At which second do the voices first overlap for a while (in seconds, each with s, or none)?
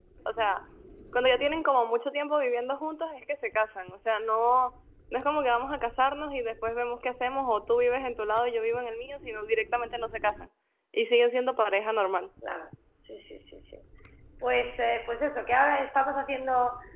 none